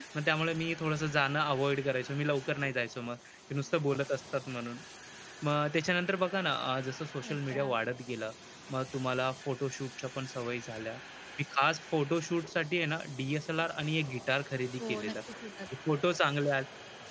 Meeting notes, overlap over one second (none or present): none